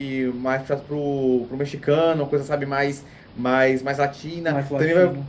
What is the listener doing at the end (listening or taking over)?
listening